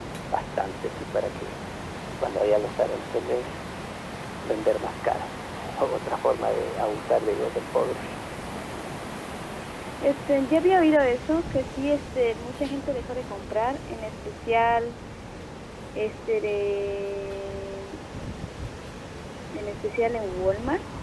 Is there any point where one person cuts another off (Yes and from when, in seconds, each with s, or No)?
No